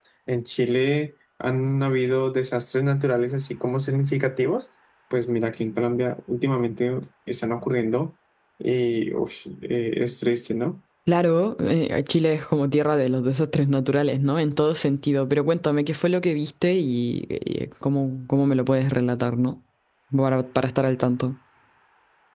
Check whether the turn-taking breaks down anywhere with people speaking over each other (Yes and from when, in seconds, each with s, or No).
No